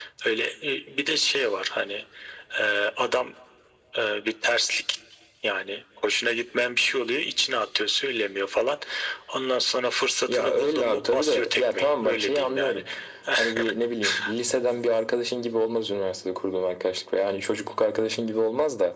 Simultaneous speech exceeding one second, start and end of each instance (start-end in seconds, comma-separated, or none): 10.3-12.8